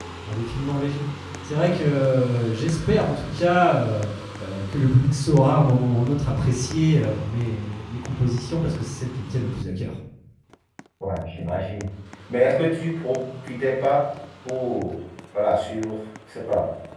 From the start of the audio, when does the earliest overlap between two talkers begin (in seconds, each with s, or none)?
none